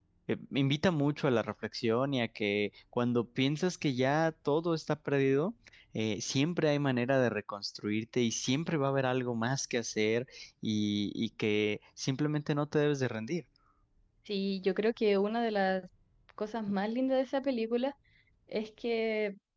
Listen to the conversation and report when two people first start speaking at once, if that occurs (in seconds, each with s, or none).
none